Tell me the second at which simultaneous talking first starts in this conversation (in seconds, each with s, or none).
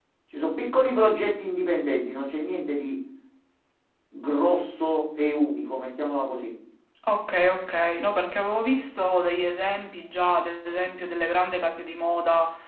none